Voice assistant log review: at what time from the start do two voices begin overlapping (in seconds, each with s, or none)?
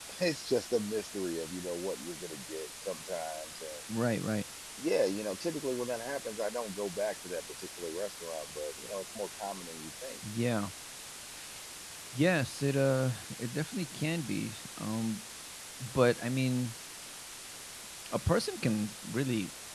none